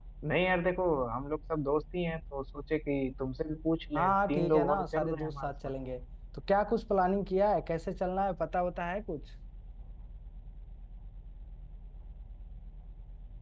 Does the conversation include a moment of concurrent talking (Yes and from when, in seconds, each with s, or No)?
Yes, from 4.0 s